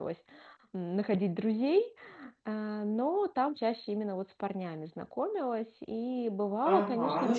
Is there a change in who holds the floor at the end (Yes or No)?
Yes